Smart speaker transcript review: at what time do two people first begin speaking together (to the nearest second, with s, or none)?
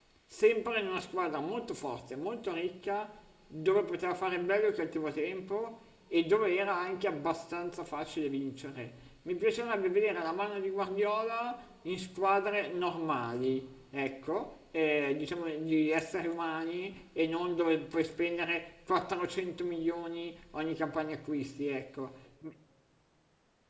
none